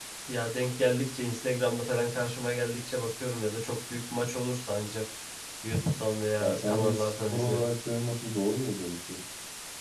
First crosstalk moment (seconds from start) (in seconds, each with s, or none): 6.4 s